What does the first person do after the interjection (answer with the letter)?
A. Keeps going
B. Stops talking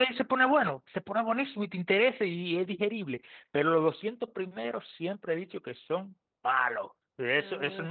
A